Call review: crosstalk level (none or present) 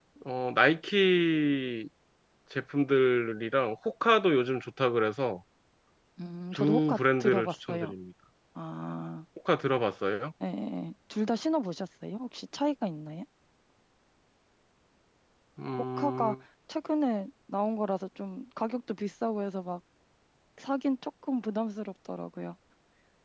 present